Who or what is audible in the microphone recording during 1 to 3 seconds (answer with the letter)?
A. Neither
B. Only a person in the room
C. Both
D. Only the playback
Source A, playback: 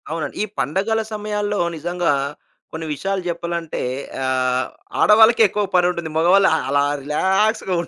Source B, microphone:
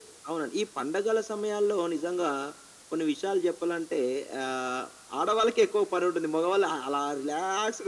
D